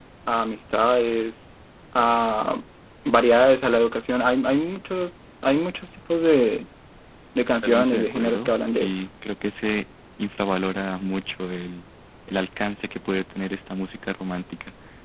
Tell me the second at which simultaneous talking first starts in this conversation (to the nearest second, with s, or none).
8 s